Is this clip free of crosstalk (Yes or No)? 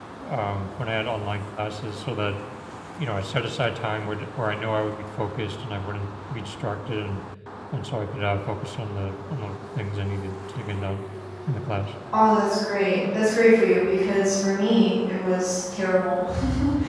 Yes